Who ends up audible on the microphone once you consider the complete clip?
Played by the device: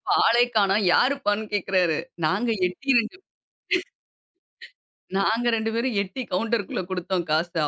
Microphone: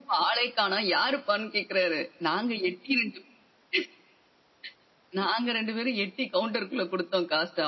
echo only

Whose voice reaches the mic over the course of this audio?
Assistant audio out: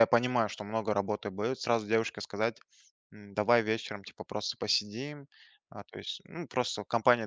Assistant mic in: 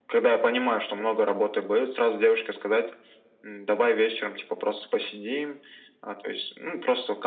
echo only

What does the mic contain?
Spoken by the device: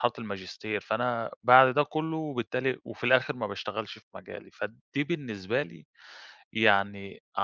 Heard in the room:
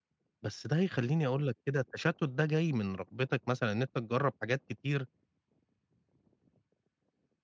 user only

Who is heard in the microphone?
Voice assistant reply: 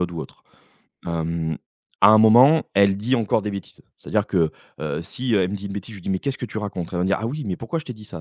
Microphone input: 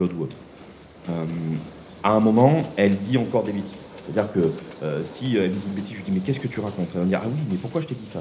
echo only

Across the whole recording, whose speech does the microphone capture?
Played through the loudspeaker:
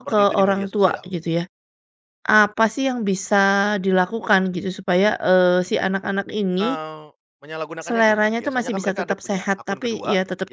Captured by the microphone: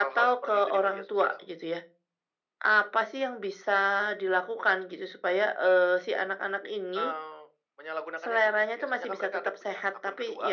echo only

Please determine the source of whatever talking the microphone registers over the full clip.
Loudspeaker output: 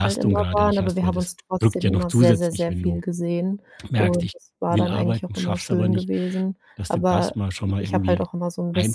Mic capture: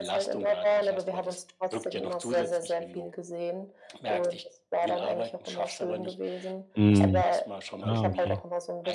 both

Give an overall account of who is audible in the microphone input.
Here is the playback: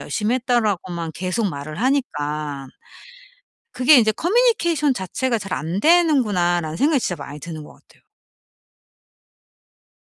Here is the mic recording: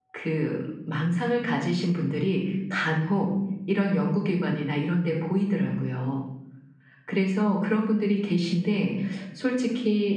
user only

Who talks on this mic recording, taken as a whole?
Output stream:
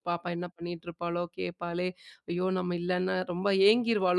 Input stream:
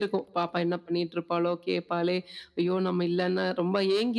echo only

